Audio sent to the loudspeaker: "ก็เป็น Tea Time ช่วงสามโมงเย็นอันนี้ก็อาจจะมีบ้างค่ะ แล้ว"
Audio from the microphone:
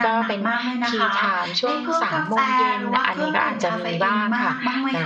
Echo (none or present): present